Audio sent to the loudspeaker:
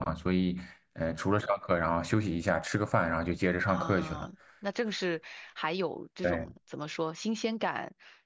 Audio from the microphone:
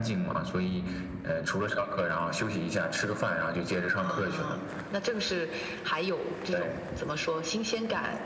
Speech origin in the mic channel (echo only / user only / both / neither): echo only